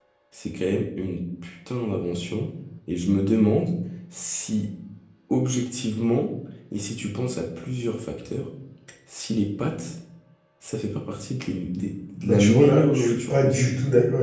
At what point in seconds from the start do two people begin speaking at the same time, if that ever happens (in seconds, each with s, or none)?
12.2 s